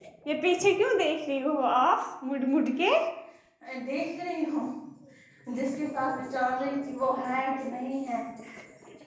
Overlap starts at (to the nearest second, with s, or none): none